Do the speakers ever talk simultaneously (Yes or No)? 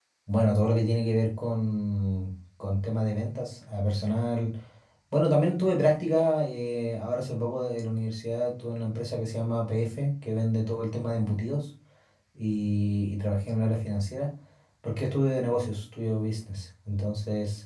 No